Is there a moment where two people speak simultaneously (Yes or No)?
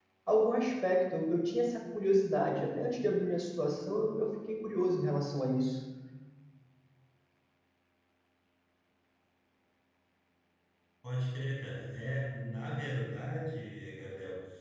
No